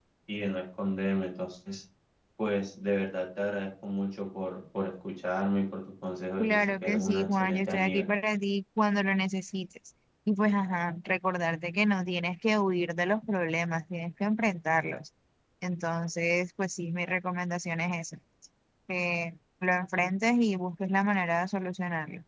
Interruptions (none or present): present